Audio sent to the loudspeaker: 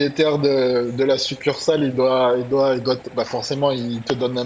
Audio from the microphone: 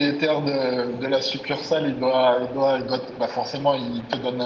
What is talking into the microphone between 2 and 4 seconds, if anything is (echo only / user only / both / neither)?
echo only